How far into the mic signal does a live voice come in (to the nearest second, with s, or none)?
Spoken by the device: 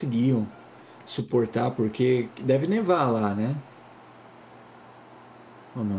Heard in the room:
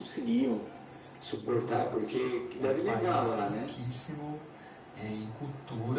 1 s